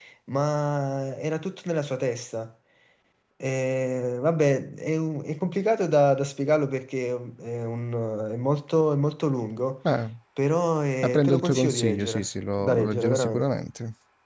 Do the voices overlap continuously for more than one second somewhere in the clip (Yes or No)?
Yes